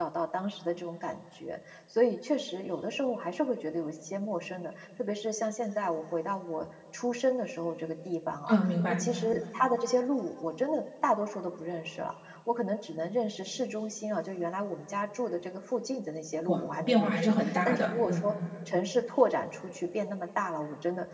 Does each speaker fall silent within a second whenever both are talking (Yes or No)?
No